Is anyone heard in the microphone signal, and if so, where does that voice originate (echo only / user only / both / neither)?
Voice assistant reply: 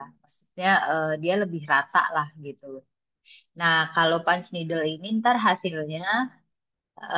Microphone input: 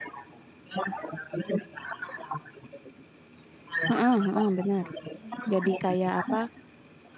both